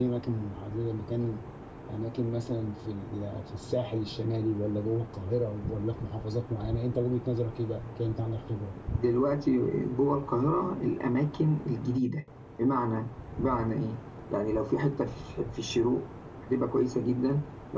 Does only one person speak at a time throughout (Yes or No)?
Yes